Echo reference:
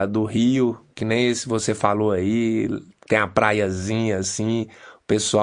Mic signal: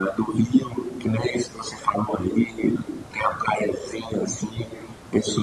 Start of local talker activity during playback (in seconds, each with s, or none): none